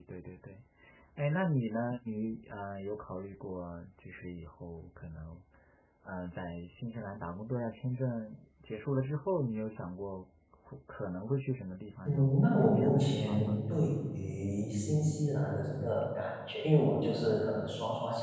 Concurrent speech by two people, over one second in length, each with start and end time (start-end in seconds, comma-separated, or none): 12.0-13.6